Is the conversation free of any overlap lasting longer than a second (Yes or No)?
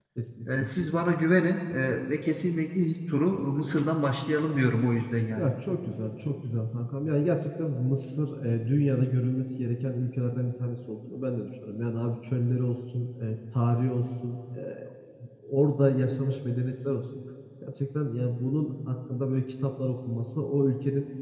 Yes